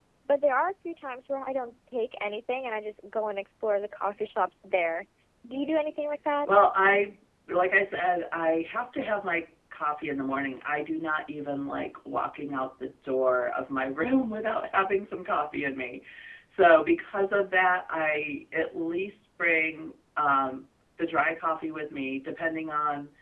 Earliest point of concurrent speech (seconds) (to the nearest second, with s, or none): none